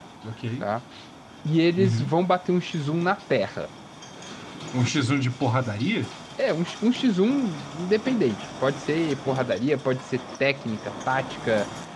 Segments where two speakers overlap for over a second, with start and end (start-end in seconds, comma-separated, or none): none